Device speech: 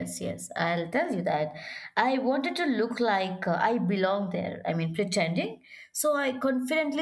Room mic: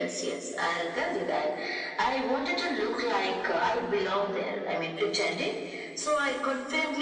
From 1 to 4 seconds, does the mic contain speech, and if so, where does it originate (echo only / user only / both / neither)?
echo only